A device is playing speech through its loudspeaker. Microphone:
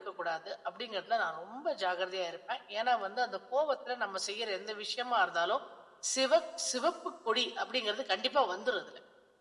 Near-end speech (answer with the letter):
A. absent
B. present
A